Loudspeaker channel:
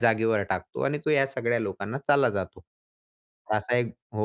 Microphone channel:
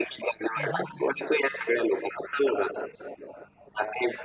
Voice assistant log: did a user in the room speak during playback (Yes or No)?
Yes